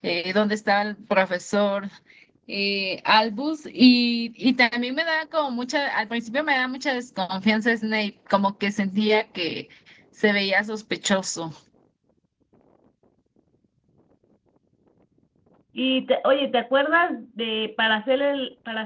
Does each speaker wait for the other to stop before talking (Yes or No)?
Yes